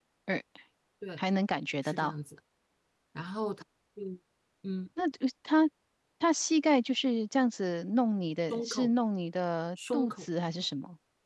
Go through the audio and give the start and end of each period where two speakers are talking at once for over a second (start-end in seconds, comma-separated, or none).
none